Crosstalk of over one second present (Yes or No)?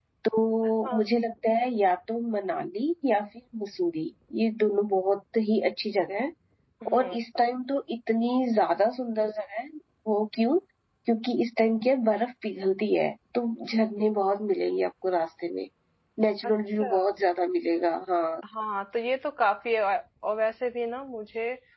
No